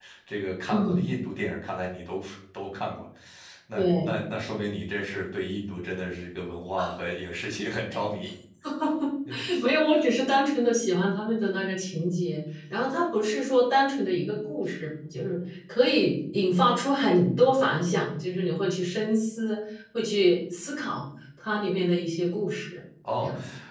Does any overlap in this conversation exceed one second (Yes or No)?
No